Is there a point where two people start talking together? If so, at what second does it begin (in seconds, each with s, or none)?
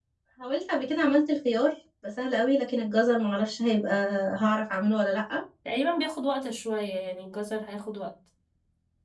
none